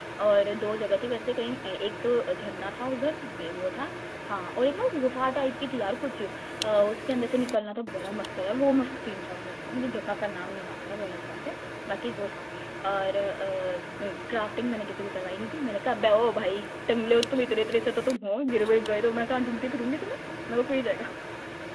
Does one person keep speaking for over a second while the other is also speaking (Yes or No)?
No